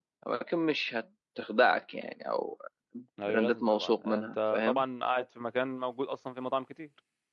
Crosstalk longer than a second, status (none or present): present